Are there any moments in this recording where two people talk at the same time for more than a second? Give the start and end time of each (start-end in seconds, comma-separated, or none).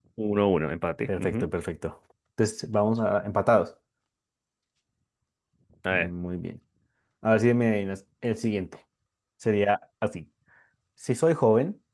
none